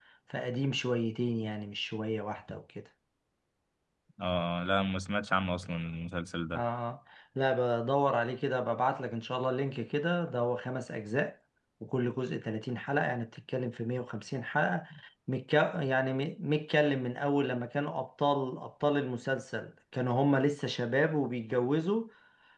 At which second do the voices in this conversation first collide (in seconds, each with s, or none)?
none